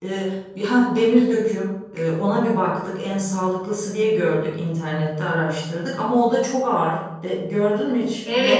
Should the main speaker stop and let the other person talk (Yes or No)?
Yes